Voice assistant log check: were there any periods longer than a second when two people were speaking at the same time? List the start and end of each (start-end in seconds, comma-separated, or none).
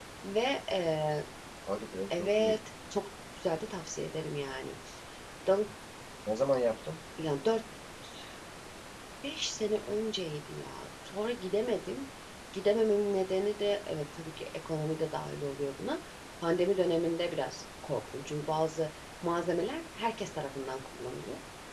none